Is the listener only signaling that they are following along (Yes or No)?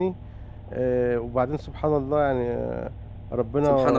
Yes